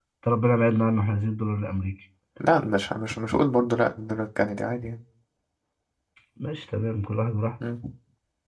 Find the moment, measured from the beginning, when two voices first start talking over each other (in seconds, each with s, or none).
none